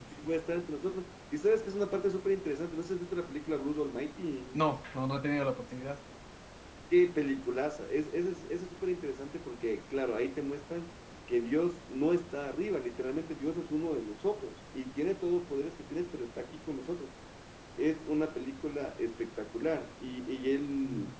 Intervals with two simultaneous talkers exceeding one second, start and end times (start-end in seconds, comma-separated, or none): none